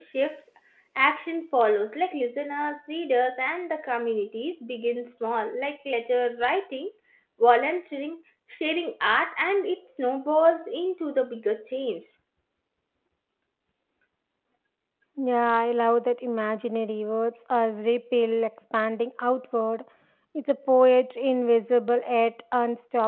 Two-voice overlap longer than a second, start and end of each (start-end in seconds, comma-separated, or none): none